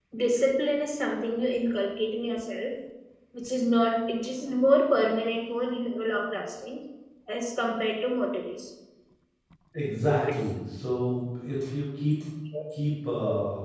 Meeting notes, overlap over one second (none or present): none